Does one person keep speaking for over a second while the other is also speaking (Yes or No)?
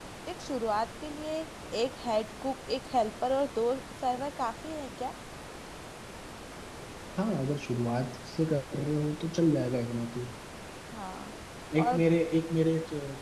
No